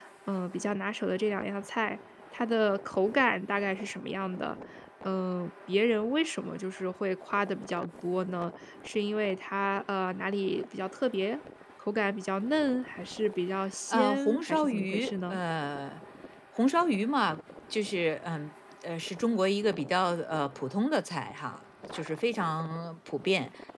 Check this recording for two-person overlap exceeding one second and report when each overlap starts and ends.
13.9-15.4

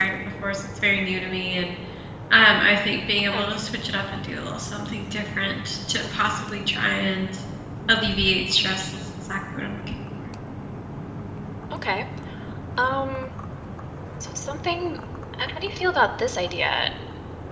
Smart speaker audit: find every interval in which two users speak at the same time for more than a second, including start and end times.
none

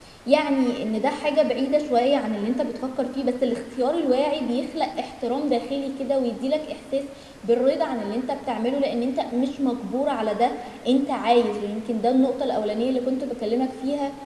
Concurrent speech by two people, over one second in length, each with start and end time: none

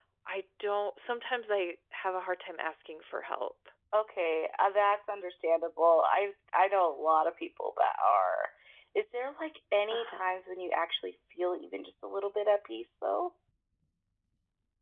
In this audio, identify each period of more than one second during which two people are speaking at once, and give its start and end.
none

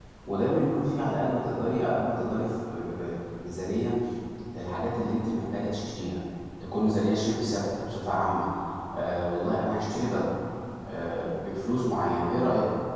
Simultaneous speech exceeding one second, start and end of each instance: none

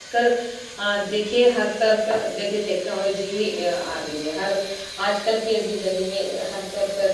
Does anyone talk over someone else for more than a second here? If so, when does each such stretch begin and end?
none

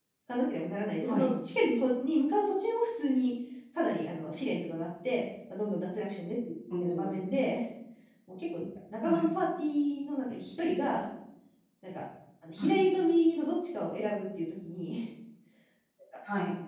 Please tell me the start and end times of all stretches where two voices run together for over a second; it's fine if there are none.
none

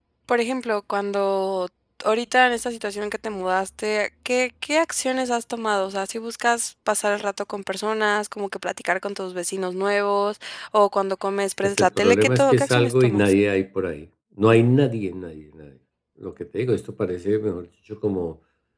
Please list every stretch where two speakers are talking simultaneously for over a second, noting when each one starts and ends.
11.6-13.3

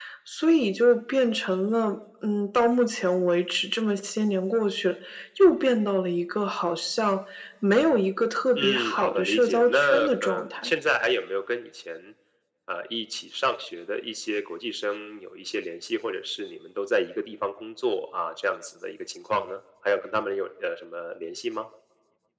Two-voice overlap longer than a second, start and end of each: 8.6-10.7

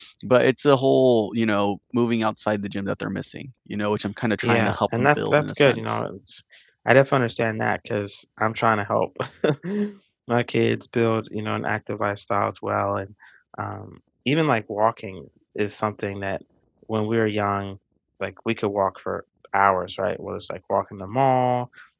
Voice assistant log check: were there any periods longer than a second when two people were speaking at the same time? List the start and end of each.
4.4-6.0

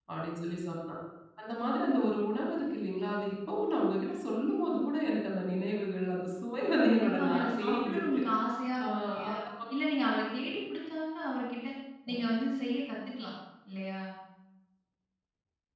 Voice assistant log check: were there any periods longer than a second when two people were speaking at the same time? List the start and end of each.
6.8-8.2

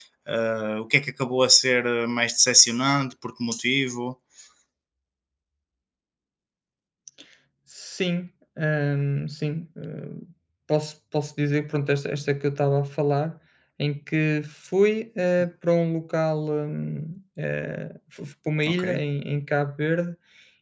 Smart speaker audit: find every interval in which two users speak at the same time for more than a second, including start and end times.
none

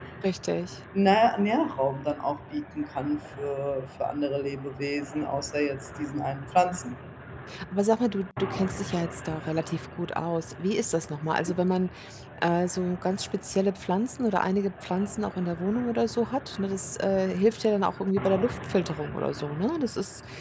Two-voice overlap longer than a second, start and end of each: none

